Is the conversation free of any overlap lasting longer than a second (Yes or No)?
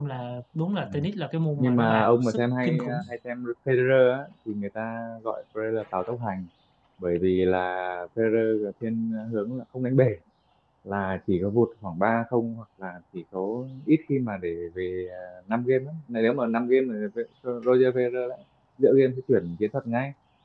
No